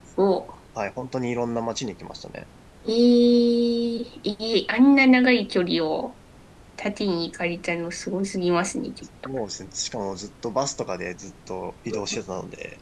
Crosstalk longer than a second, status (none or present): none